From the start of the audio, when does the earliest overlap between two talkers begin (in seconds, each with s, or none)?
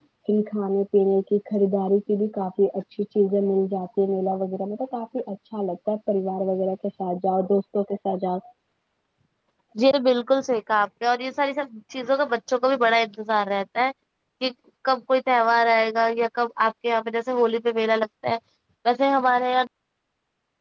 none